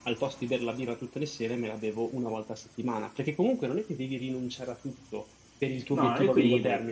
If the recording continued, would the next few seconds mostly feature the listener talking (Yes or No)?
No